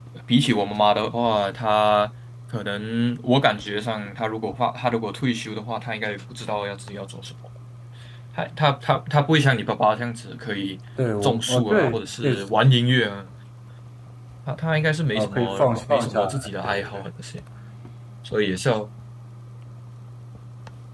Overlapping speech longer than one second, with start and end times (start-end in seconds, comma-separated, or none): 11.2-12.4, 15.2-17.0